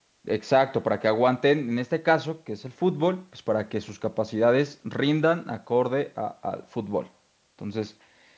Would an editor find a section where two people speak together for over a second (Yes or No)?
No